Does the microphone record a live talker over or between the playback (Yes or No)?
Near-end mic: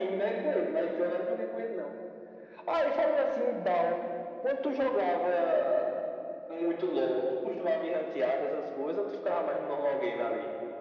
No